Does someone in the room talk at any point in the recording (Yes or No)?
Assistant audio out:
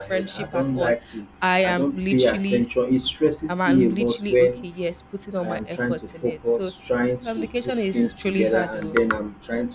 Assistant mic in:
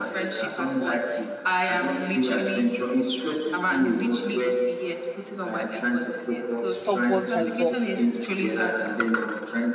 Yes